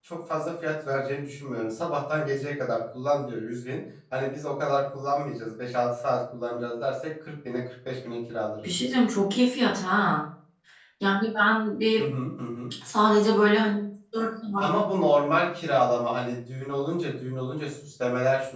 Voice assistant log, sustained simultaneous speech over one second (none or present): none